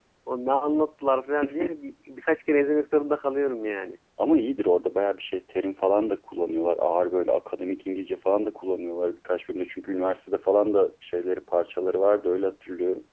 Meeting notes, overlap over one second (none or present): none